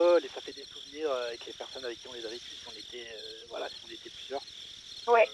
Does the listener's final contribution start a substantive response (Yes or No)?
Yes